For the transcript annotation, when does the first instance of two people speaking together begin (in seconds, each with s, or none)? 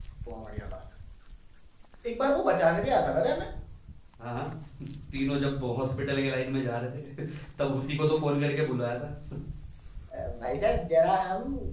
none